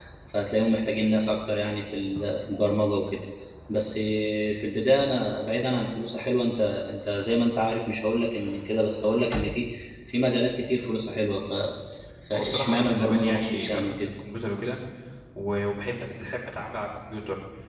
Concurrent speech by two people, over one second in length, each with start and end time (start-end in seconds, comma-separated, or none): 12.3-14.1